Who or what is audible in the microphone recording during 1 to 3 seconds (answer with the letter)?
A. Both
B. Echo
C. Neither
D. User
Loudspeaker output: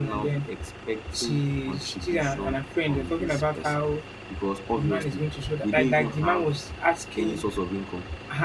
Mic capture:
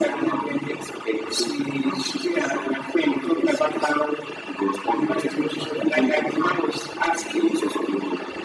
B